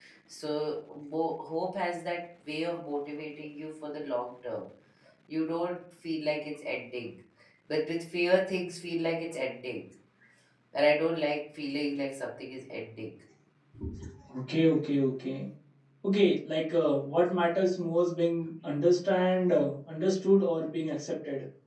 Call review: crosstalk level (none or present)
none